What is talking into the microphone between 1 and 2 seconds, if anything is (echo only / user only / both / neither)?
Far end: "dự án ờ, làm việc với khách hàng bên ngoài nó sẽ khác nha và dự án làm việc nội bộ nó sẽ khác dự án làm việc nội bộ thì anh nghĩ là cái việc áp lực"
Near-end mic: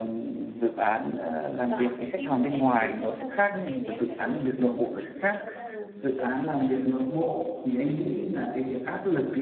both